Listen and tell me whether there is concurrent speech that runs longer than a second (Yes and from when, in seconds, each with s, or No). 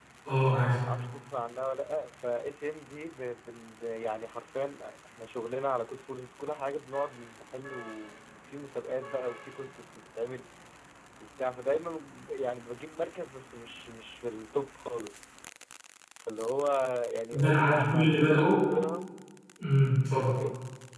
Yes, from 17.3 s